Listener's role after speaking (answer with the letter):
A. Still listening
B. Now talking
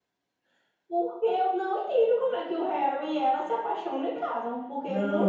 B